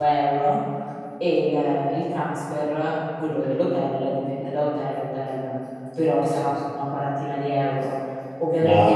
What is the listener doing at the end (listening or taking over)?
listening